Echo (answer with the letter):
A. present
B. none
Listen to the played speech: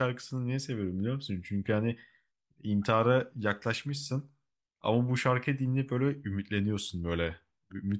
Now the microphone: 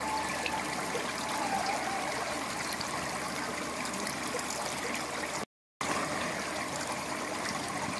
B